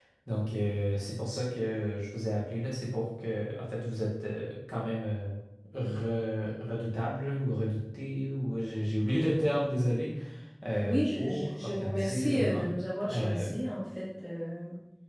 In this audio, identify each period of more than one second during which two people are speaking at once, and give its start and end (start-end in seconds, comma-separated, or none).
10.8-12.7